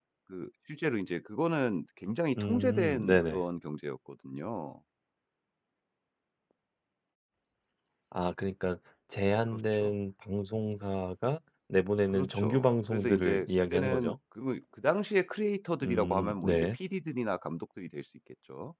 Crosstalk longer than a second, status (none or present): present